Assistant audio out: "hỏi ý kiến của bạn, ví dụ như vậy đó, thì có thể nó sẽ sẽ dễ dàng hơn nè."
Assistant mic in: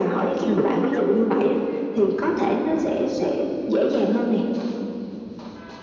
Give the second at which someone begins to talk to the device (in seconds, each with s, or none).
0.4 s